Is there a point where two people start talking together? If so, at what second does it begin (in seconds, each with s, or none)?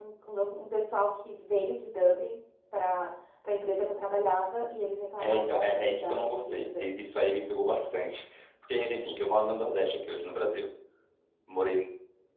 5.2 s